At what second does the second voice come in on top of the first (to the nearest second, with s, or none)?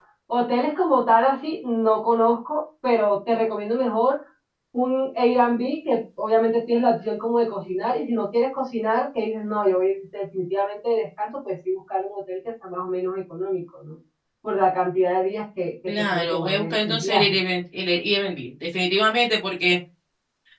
16 s